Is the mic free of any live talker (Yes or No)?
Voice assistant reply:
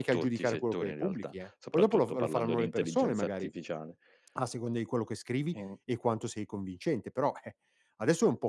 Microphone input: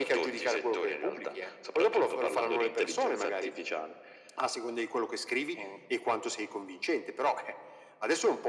Yes